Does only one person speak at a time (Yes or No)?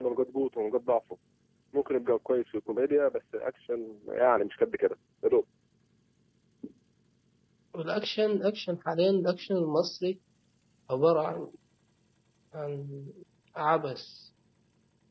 Yes